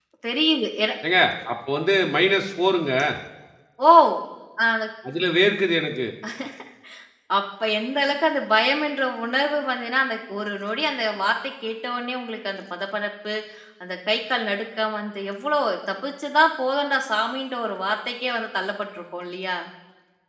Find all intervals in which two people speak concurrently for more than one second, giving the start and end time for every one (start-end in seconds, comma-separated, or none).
none